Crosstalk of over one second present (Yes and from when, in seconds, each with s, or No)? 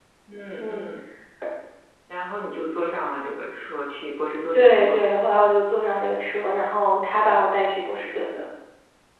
No